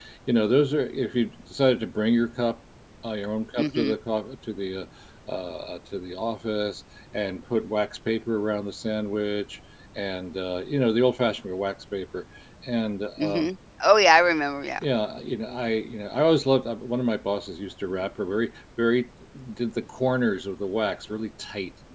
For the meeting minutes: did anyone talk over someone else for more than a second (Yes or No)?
No